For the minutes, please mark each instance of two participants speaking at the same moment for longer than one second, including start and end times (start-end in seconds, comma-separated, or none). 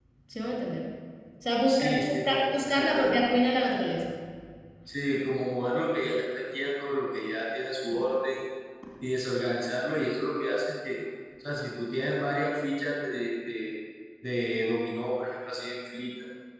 1.7-3.1